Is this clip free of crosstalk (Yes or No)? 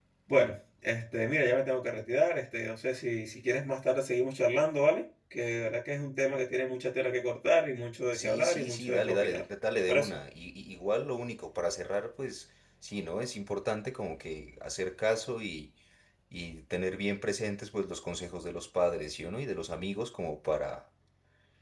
No